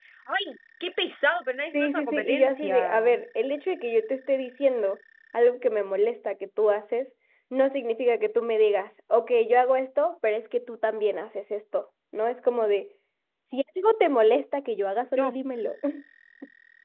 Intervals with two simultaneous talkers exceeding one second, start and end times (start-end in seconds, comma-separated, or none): 1.7-3.0